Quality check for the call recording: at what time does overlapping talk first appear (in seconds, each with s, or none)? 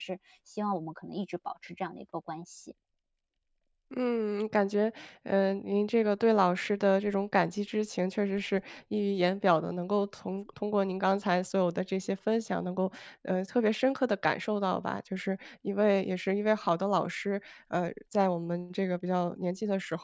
none